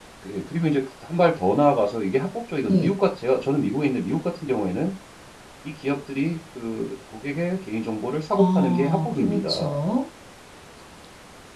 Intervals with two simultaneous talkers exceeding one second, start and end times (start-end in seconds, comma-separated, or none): 8.4-9.8